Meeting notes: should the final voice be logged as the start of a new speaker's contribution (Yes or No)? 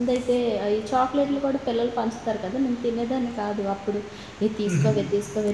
No